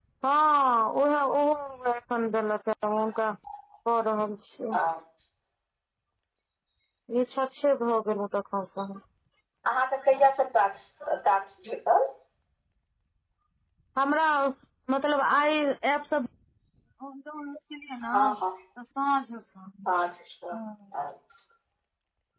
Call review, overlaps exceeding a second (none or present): none